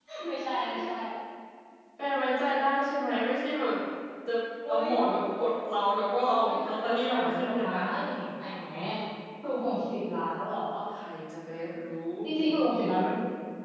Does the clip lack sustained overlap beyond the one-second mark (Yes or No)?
No